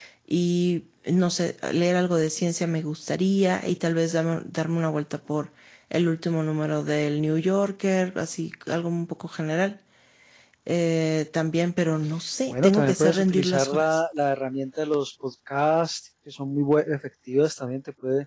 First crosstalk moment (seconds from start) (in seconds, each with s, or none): 12.5 s